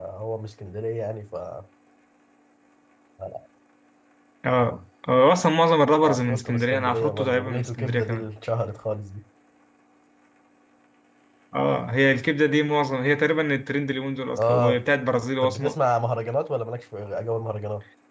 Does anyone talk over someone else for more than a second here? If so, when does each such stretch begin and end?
6.0-8.2

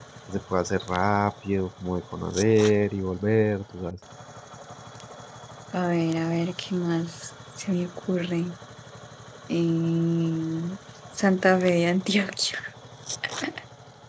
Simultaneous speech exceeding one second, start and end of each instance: none

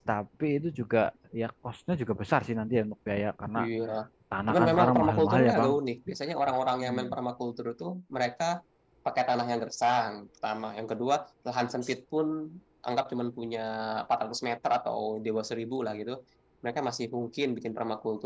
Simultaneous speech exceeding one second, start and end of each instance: 4.5-5.7

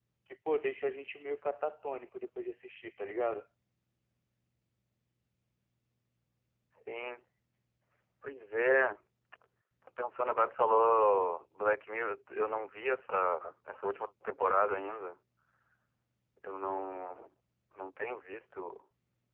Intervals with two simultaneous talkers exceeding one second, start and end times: none

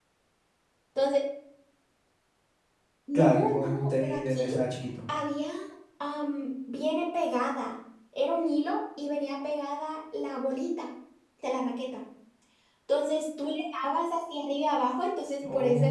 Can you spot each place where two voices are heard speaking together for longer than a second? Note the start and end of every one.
3.1-4.5

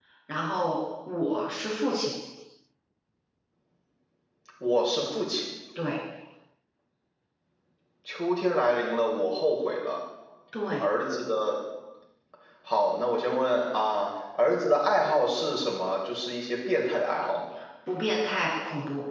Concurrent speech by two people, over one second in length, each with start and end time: none

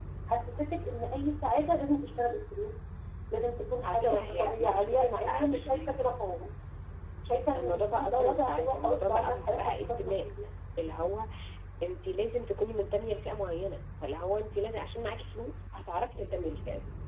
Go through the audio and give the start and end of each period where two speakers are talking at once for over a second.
3.8-6.0, 7.6-10.2

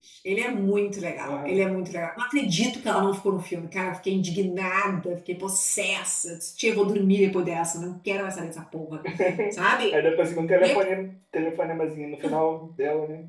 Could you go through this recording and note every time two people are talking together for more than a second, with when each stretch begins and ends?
none

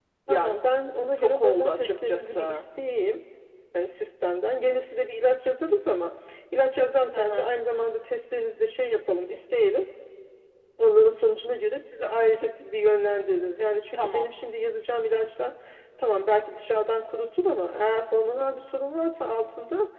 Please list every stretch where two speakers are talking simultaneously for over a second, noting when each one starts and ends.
1.2-2.6

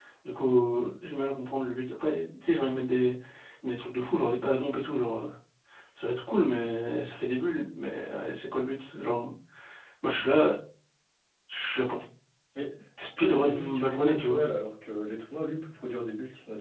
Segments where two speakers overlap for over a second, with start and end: 13.2-14.4

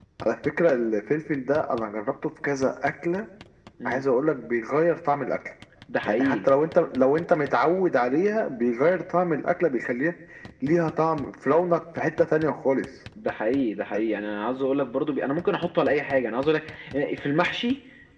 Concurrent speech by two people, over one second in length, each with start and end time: none

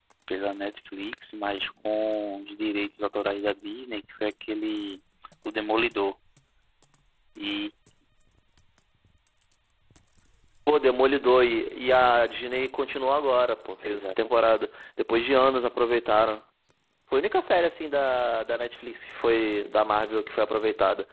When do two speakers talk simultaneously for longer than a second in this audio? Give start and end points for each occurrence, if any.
none

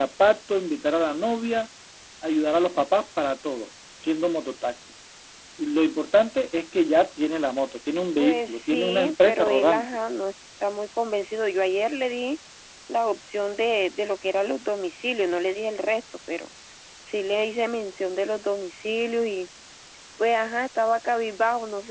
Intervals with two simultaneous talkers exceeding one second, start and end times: 8.2-9.8

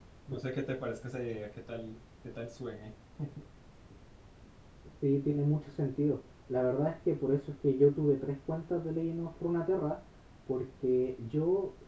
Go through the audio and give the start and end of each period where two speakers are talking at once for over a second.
none

